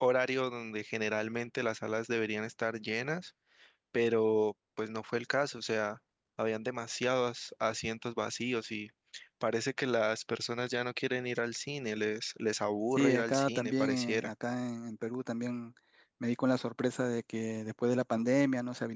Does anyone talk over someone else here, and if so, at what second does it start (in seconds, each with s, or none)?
12.9 s